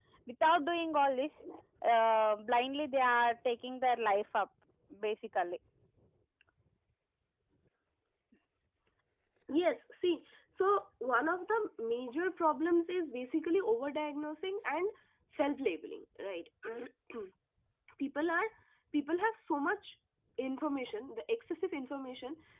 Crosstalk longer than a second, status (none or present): none